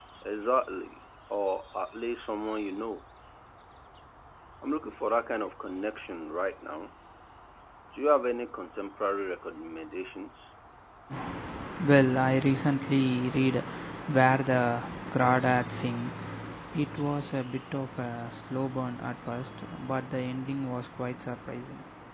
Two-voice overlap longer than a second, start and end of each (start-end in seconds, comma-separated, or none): none